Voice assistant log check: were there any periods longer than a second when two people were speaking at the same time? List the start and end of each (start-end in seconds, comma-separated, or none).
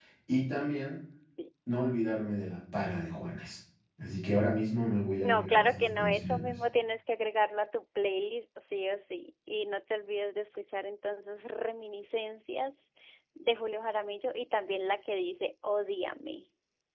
5.2-6.5